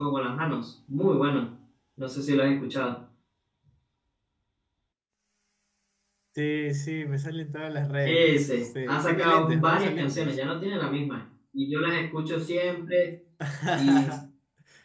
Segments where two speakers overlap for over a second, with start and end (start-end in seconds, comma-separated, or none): 8.1-10.4